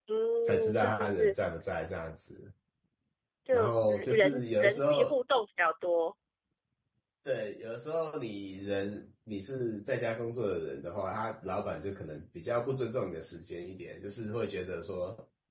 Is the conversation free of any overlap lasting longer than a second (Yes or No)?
No